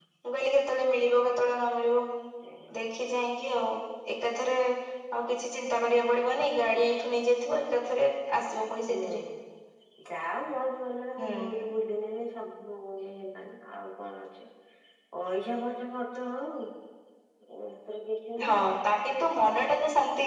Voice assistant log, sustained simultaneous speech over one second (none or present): none